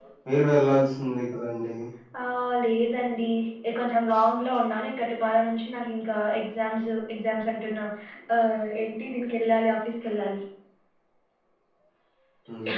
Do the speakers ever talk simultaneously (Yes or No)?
No